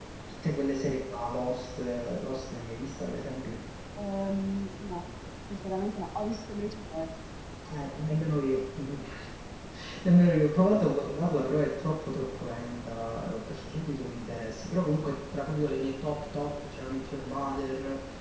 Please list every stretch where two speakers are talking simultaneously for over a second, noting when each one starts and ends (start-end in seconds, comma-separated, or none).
none